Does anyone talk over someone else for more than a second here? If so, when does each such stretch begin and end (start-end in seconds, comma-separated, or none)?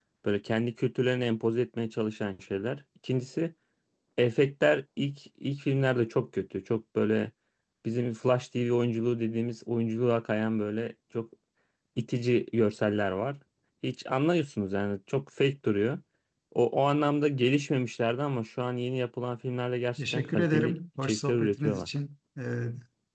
20.0-21.9